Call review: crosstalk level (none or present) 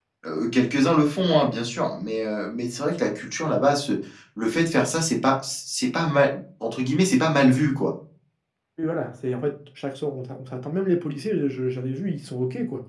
none